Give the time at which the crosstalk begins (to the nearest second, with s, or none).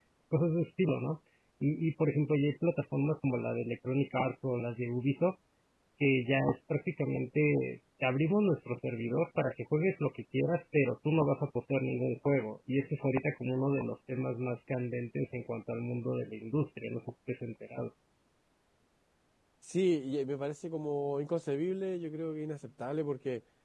none